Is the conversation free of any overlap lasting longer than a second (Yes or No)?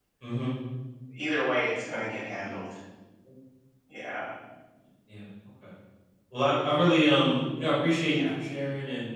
Yes